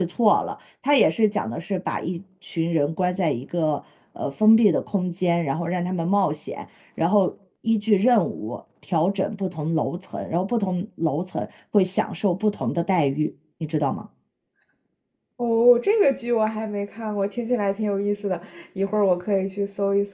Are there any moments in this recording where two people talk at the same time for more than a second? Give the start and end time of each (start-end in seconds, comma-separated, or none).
none